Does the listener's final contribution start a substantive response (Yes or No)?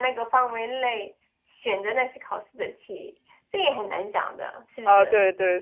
Yes